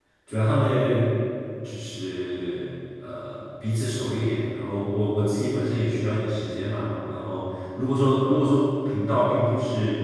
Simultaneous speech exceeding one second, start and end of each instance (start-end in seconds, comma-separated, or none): none